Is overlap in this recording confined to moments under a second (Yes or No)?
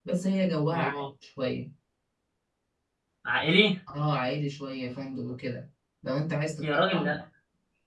Yes